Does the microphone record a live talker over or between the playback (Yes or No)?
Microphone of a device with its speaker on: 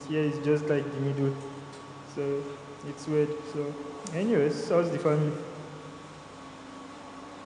No